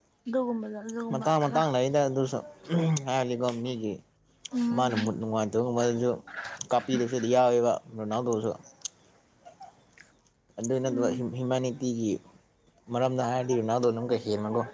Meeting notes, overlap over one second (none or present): none